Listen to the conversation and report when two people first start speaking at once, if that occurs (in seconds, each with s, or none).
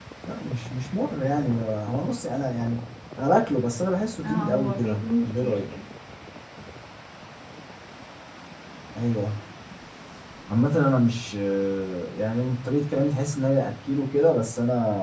4.2 s